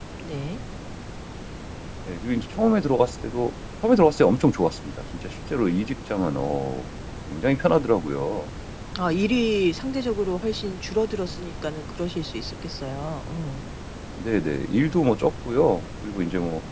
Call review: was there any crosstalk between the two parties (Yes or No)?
No